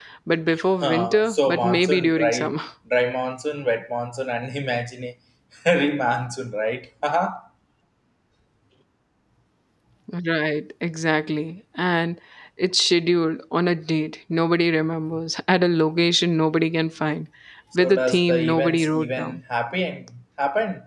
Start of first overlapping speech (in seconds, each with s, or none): 0.8 s